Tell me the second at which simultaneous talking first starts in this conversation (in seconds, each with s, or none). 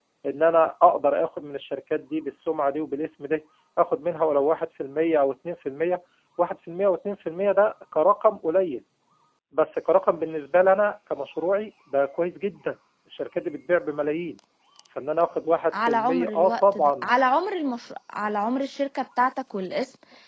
15.7 s